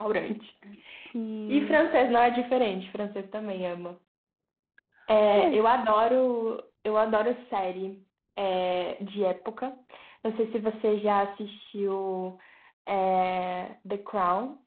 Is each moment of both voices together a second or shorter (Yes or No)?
Yes